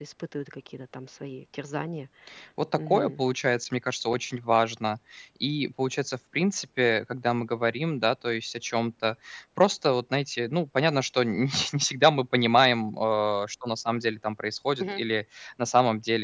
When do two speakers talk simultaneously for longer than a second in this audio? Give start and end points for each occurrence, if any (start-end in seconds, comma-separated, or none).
none